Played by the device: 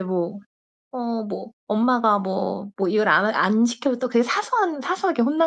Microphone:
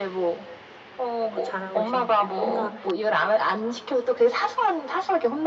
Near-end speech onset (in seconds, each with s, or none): 1.3 s